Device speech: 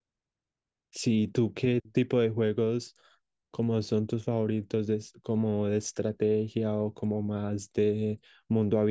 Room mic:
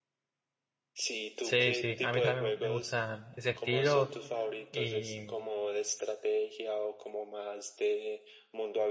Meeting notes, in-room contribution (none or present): present